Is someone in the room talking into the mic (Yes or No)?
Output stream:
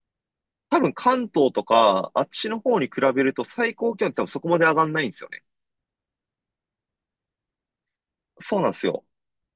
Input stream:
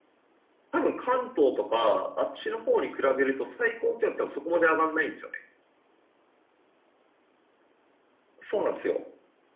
No